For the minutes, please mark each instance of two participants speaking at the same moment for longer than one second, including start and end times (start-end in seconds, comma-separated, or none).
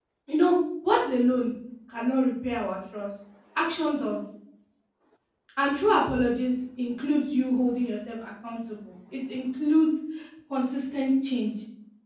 none